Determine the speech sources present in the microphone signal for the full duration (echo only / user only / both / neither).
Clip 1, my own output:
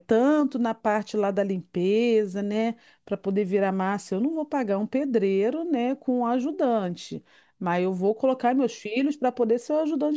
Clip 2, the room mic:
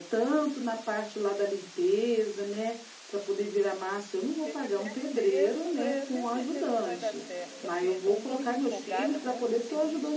both